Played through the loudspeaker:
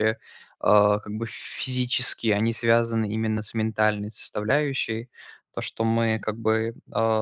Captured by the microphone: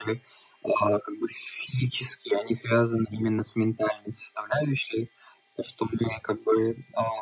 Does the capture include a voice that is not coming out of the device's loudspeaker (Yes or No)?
No